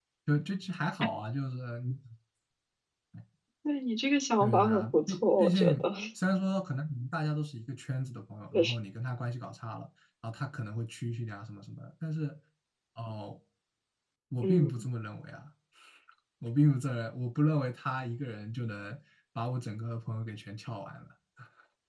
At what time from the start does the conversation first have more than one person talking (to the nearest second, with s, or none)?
4 s